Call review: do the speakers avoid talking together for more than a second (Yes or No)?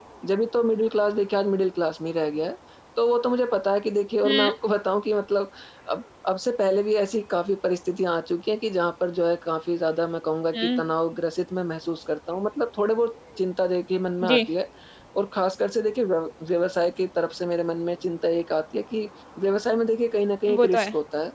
Yes